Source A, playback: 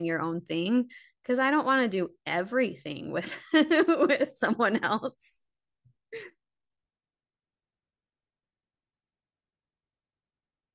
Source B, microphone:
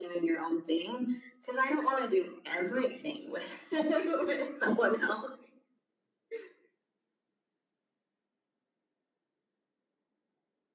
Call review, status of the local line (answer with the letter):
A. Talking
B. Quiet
B